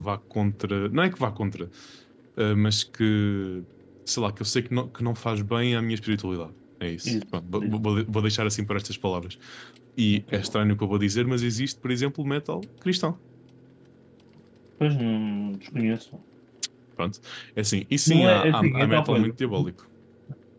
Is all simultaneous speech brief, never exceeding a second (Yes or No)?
No